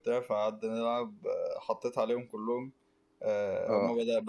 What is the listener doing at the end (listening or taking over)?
listening